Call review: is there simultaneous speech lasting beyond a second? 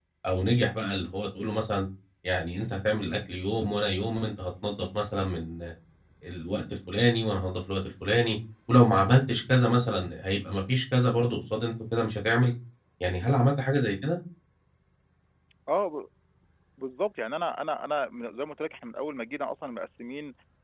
No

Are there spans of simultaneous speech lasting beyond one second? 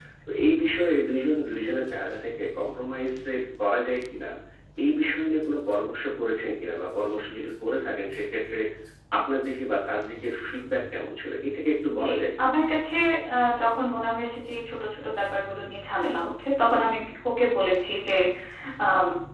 No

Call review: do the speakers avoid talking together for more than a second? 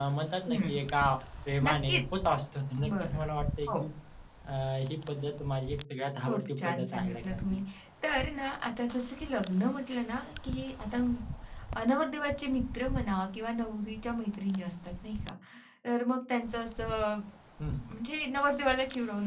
No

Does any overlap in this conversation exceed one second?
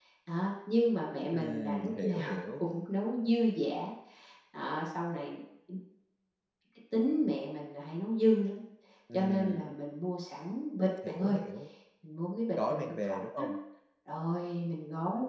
Yes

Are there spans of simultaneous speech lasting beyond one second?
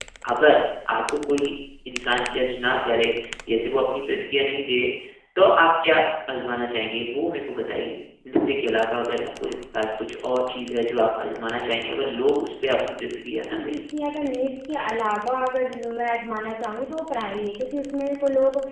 No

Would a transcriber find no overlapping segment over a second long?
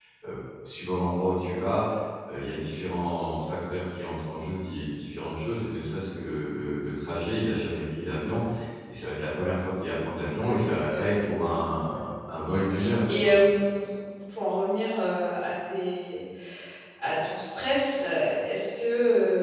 No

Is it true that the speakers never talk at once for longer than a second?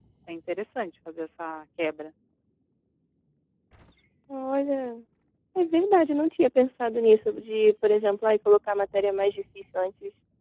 Yes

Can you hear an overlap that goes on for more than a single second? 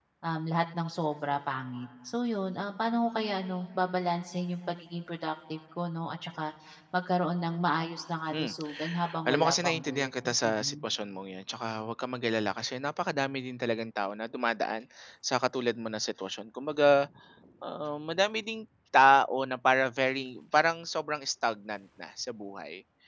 Yes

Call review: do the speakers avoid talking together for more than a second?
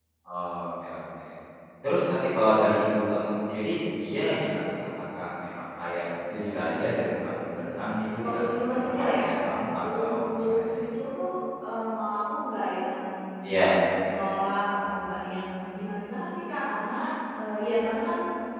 No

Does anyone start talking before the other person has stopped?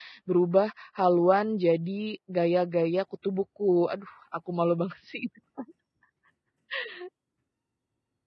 No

